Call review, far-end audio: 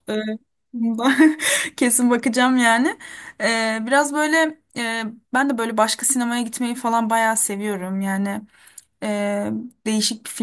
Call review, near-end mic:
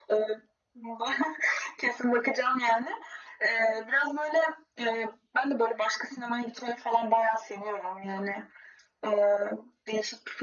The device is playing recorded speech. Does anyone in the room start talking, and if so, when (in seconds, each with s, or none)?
none